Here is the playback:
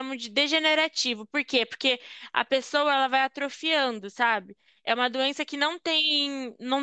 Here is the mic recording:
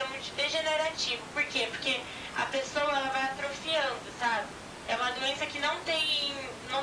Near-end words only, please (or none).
none